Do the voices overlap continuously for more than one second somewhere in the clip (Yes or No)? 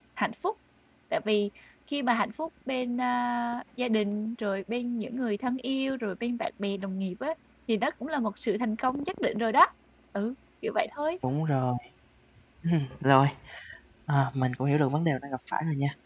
No